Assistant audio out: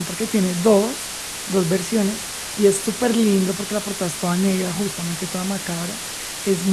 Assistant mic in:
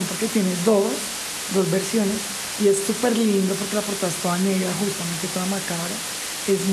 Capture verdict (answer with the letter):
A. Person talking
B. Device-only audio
B